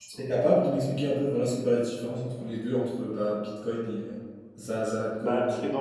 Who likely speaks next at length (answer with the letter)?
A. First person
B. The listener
B